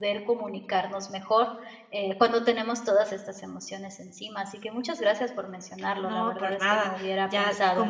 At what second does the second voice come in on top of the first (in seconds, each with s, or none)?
6.0 s